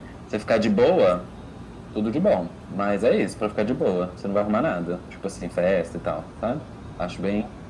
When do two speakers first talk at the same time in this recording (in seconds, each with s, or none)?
none